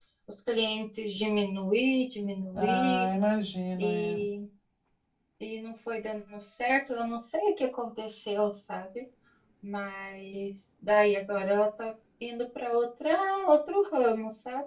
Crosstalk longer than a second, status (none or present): none